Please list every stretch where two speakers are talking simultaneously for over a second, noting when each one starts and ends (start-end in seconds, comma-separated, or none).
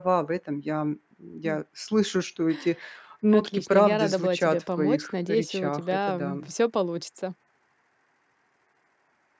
3.3-6.4